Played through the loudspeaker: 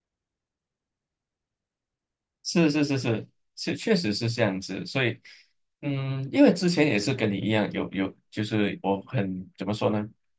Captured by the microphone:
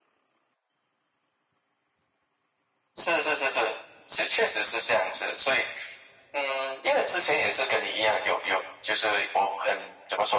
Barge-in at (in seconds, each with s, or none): none